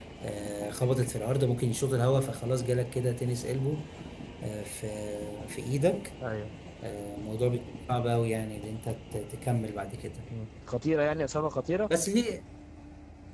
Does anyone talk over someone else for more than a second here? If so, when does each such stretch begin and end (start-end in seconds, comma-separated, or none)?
none